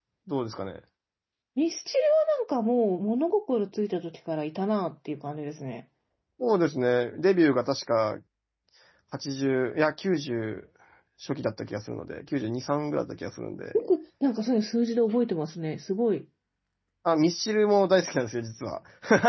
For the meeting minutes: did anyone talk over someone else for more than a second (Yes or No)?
No